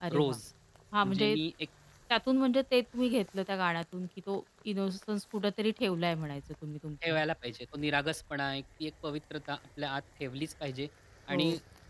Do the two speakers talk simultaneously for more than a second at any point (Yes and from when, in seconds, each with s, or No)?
No